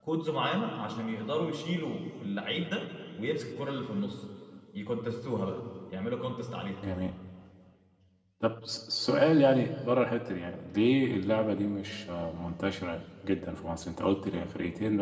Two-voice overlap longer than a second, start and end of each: none

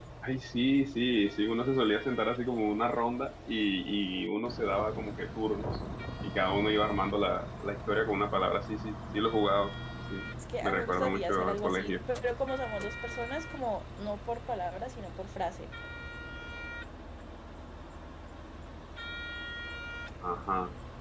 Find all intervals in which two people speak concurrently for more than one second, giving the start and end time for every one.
10.6-12.0

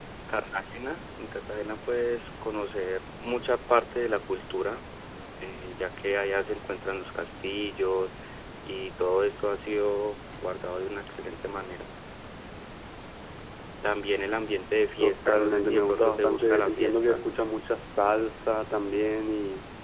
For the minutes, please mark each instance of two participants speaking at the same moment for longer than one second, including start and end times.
15.0-17.2

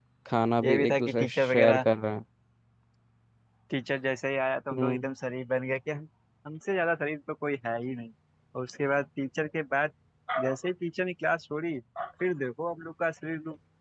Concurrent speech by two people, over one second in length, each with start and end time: 0.6-1.8

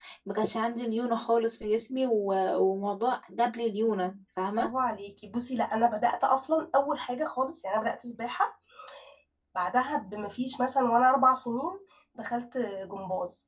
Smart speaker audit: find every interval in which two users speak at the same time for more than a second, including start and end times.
none

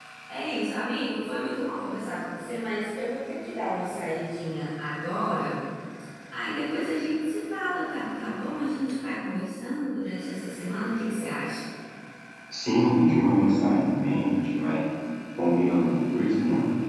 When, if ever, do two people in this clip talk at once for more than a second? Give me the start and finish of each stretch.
none

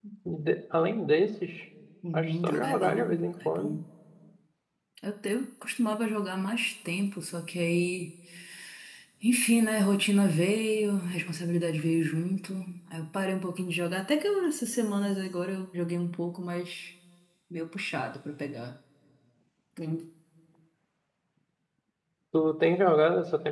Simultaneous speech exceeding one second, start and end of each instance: 2.1-3.7

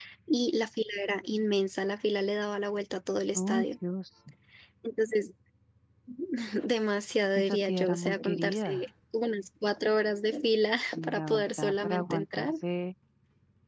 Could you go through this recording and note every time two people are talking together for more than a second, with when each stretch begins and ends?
7.3-8.8, 10.9-12.5

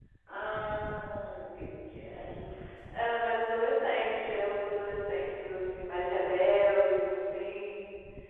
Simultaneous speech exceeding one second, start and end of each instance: none

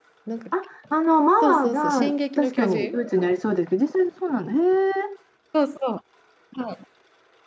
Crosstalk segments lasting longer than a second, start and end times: 1.4-3.0

